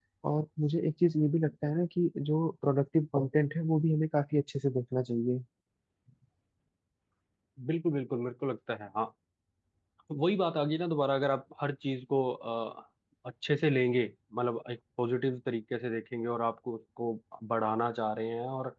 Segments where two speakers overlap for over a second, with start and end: none

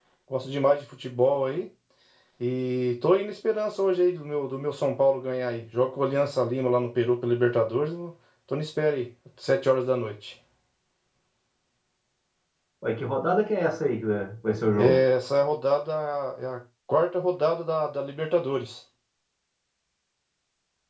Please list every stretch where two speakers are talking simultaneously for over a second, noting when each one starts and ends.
none

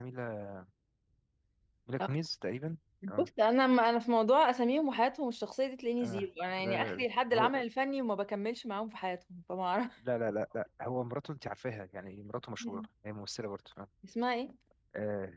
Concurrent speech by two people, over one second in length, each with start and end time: 6.0-7.5

